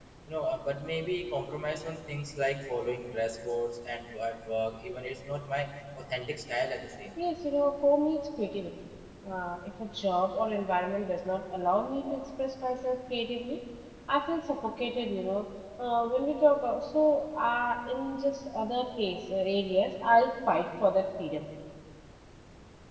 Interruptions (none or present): none